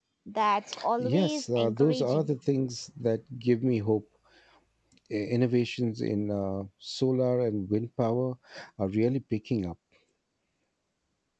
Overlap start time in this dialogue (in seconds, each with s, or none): 1.0 s